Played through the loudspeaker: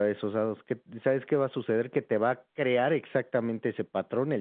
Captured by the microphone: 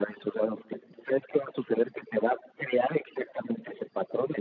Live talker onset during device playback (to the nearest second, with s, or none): none